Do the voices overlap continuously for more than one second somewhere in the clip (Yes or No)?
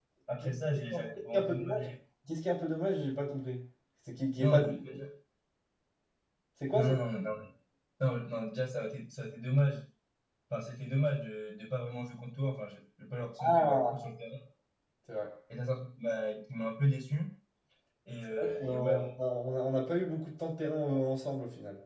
Yes